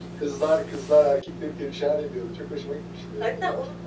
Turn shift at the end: Yes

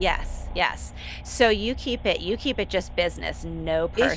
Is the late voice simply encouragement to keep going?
No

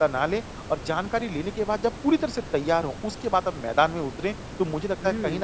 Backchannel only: Yes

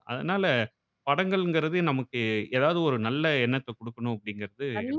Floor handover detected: Yes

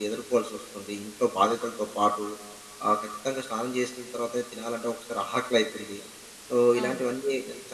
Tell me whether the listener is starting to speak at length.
No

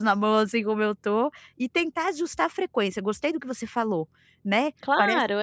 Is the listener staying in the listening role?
No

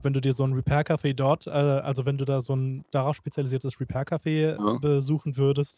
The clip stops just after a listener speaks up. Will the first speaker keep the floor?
Yes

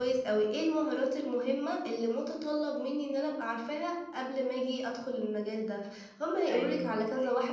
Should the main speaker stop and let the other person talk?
No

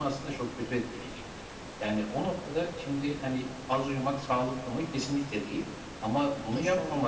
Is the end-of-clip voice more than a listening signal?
No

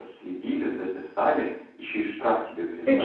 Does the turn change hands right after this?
Yes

